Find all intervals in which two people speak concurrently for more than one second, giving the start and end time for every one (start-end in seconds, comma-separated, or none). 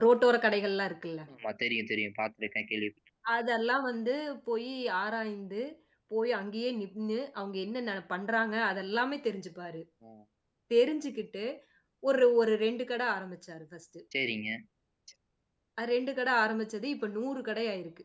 none